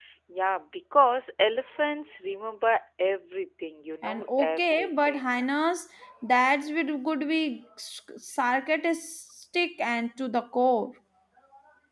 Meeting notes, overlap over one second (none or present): present